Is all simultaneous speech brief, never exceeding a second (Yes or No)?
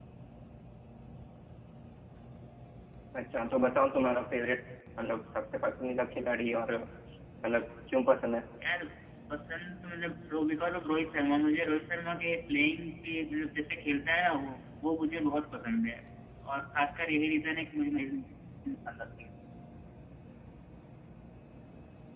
Yes